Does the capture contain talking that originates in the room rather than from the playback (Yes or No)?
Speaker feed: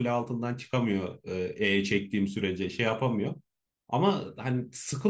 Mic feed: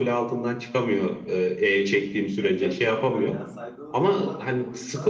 Yes